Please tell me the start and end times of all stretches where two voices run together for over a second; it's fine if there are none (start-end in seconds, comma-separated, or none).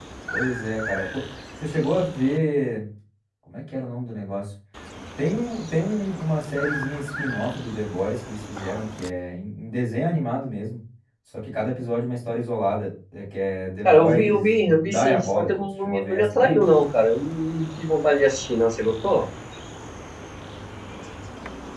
13.8-16.6